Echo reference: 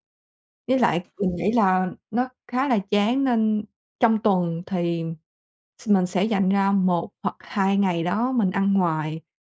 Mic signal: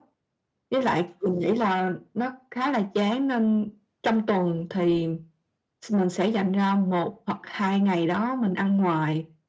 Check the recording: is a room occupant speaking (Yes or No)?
No